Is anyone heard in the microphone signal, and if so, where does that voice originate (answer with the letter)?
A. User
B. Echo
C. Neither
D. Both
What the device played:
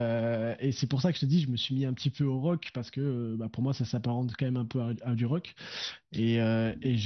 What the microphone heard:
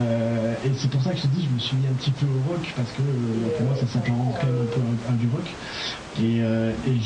D